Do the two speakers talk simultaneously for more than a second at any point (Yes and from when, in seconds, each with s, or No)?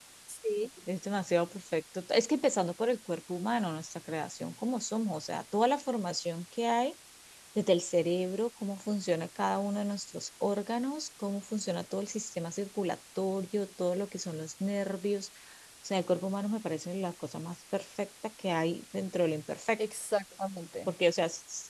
No